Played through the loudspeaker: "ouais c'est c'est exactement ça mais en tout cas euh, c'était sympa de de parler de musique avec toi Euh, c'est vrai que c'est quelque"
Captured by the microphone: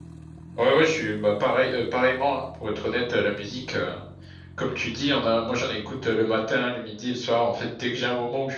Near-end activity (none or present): present